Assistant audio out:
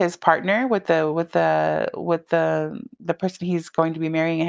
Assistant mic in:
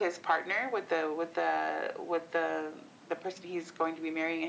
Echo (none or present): present